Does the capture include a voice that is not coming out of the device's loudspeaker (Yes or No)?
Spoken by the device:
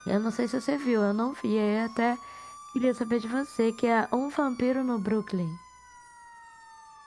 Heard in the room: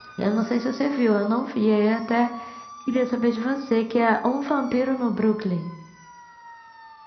No